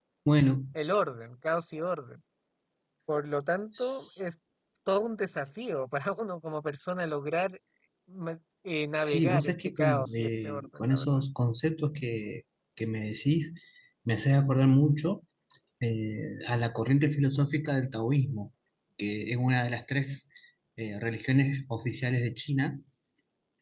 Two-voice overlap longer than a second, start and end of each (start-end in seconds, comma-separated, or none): 9.0-11.2